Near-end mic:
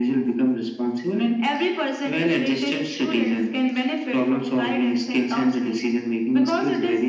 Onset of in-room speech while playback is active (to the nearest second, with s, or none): none